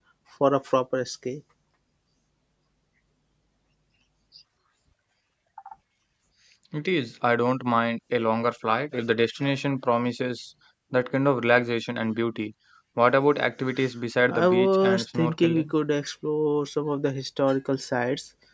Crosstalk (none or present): present